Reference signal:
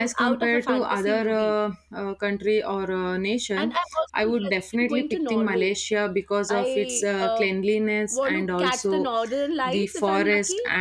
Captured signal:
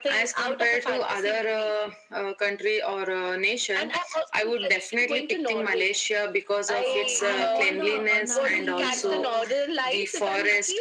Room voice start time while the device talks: 6.8 s

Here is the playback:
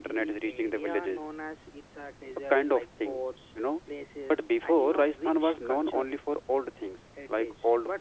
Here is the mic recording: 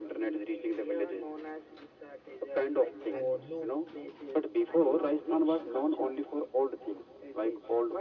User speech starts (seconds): 3.2 s

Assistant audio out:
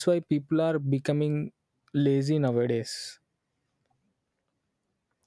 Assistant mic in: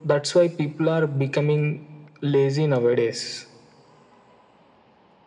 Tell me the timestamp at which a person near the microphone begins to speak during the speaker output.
none

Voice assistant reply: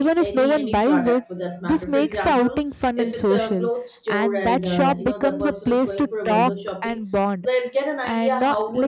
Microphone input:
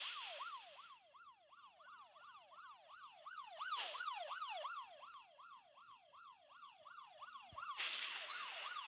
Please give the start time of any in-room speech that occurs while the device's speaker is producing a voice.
none

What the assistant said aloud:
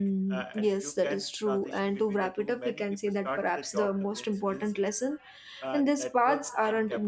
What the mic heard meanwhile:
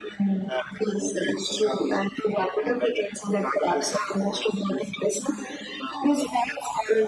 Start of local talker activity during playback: none

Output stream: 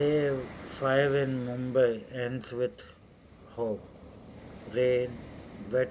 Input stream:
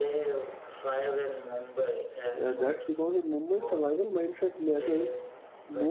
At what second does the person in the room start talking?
2.4 s

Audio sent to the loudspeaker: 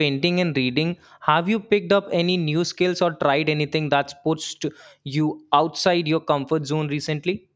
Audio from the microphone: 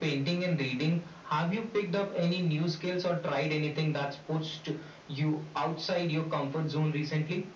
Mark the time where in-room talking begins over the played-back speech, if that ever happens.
none

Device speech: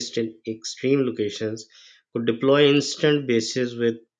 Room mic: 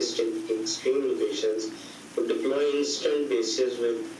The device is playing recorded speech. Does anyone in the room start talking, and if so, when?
none

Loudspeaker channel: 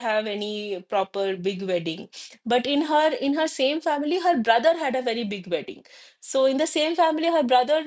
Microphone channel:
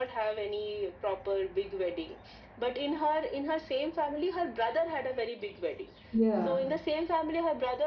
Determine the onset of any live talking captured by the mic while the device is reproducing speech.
6.1 s

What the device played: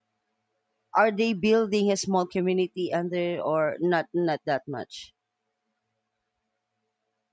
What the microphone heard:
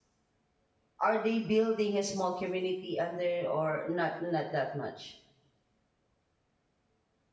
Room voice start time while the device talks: none

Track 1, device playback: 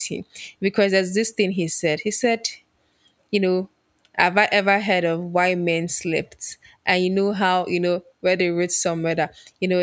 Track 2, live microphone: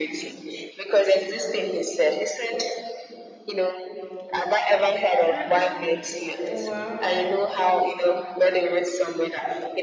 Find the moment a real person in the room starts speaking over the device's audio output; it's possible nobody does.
5.3 s

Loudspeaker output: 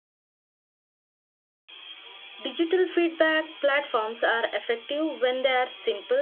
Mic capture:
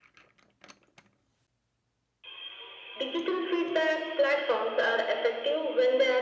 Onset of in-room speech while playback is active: none

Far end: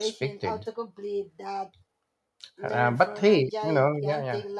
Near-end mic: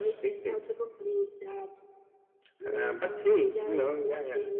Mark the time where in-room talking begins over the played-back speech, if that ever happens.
none

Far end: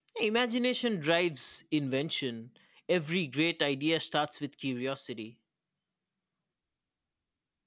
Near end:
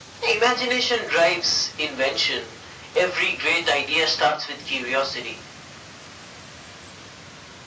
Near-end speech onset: none

